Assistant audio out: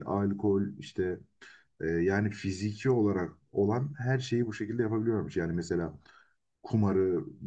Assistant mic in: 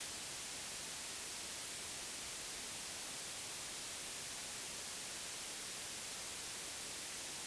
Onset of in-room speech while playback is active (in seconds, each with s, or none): none